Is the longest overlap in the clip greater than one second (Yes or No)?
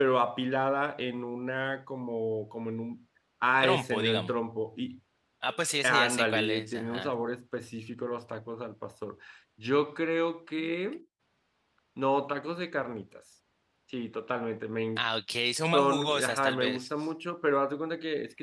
Yes